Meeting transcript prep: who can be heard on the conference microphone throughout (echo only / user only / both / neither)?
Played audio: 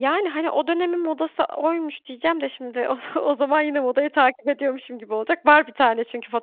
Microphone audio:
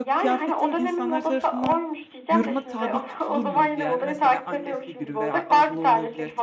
both